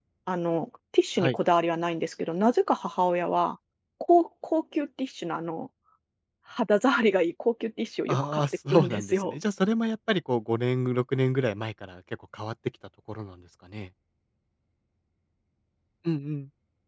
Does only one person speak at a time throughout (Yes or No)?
No